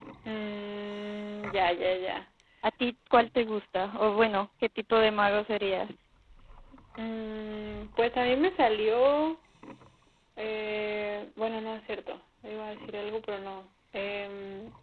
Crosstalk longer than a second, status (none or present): none